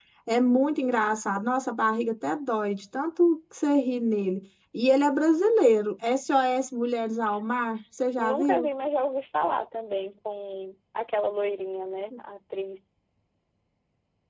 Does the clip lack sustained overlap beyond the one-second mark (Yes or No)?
Yes